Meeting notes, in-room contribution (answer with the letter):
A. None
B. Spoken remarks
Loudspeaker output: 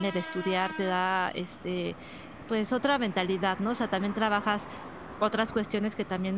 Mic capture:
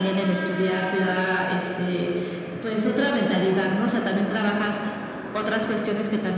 A